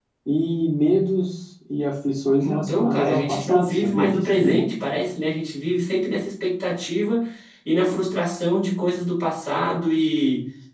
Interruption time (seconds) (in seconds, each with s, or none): 2.4 s